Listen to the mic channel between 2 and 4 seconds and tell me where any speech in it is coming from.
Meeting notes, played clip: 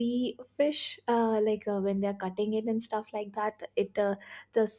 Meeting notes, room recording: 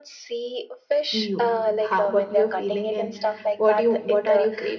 both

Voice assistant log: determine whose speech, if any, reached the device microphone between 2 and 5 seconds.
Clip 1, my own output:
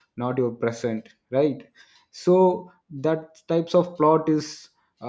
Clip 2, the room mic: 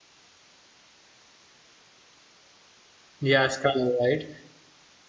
user only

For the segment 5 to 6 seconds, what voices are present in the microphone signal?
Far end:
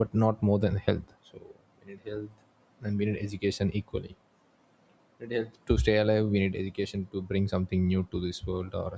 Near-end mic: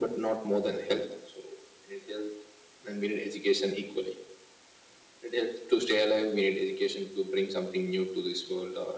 echo only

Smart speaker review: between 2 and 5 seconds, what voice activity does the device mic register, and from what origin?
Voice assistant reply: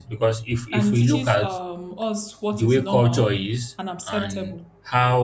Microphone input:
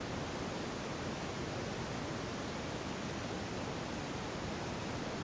neither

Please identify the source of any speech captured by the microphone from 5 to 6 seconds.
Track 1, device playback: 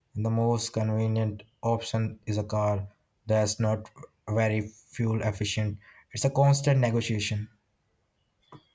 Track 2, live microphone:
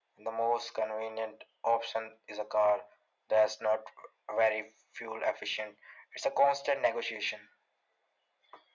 echo only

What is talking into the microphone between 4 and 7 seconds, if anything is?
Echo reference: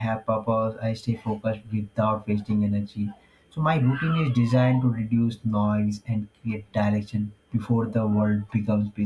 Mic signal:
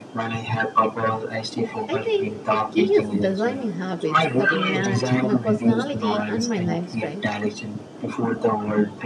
both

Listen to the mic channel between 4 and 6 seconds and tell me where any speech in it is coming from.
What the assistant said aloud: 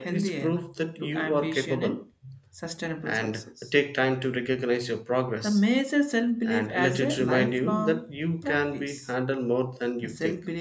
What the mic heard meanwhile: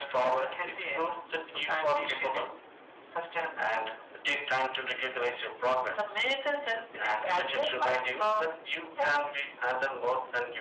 echo only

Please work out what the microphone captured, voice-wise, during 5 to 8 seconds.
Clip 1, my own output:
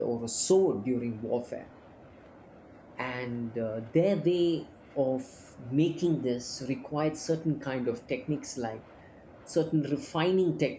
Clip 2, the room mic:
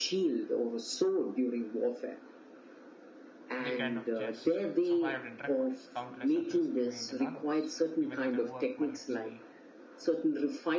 both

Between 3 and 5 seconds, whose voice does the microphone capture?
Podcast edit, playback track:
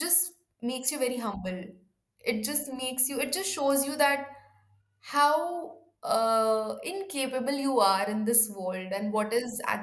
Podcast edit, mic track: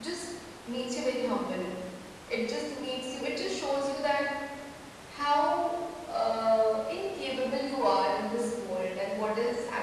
echo only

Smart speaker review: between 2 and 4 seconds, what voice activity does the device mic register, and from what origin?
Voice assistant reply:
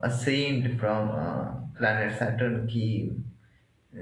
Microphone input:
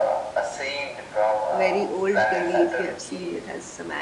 both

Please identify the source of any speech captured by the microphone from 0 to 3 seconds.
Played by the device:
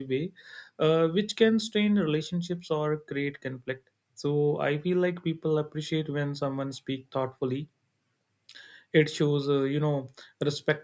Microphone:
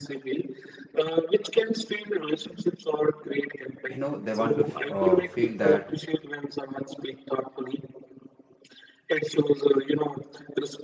echo only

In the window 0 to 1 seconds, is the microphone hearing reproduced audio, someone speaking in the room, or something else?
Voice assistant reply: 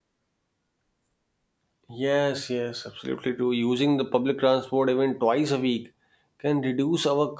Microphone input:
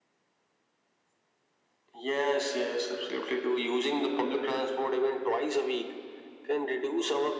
neither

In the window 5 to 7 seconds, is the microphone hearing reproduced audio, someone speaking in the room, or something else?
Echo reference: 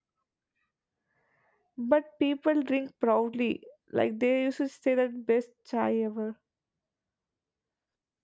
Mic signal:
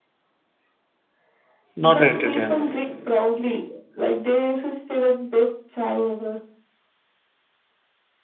echo only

